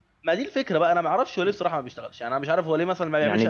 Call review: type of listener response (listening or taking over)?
taking over